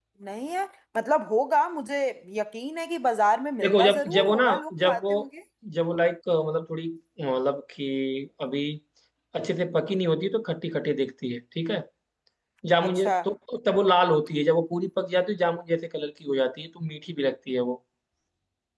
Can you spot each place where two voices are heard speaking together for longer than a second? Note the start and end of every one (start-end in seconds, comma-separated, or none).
3.6-5.1